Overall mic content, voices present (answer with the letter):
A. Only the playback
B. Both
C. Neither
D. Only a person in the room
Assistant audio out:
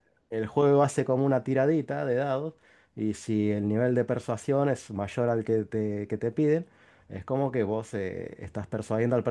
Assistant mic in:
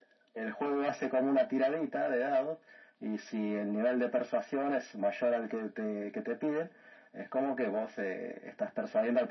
A